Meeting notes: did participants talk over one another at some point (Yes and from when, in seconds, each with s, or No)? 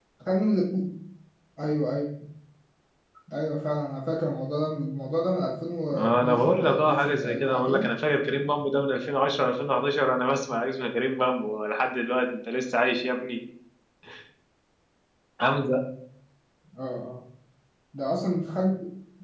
Yes, from 5.9 s